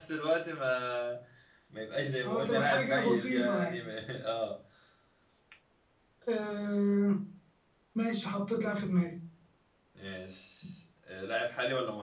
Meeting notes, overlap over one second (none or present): present